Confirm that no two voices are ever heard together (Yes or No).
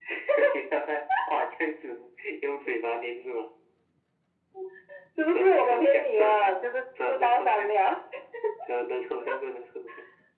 No